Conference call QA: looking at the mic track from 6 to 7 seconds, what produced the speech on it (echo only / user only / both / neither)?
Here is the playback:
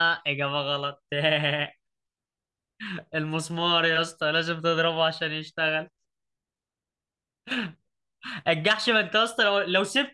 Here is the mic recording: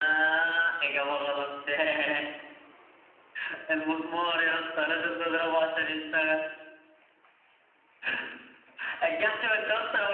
echo only